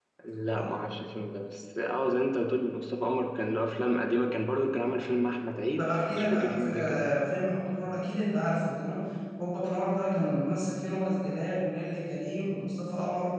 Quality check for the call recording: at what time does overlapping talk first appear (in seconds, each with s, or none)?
5.8 s